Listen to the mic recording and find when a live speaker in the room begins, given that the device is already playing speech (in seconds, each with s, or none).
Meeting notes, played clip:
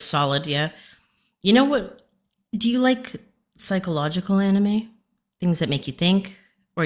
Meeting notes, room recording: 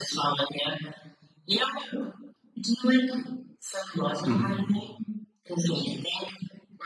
4.2 s